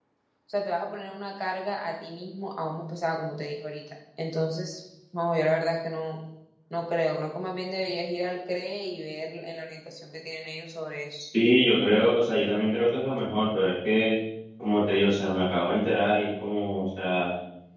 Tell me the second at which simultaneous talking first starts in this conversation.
none

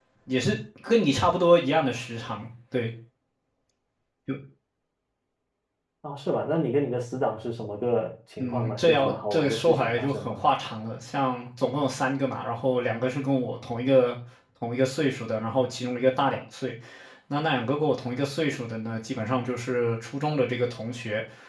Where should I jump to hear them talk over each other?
8.4 s

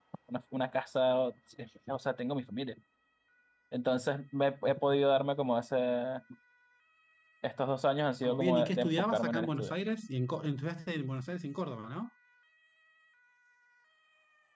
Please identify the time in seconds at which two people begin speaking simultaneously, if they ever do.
8.2 s

